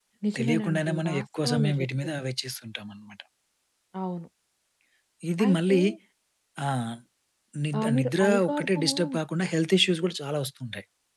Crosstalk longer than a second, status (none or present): present